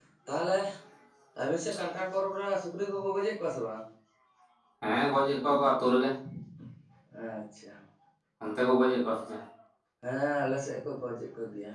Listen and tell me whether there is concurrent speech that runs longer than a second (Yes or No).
No